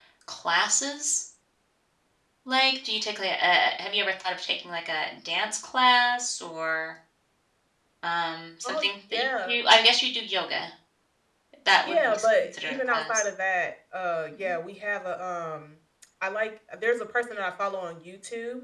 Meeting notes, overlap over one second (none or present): present